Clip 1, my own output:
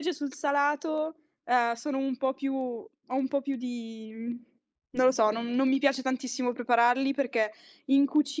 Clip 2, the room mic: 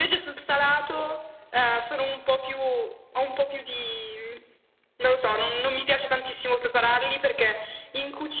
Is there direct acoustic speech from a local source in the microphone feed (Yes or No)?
No